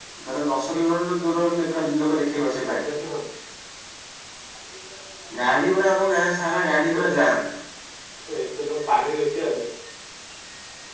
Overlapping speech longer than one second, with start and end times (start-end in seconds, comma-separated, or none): none